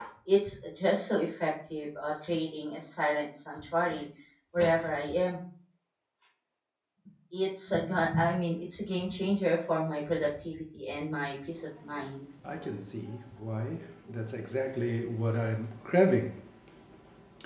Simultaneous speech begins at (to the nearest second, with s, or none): none